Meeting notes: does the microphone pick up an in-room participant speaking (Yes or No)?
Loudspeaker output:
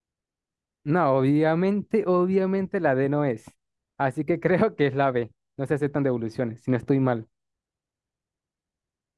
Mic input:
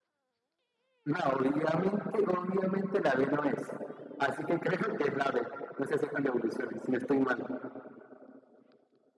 No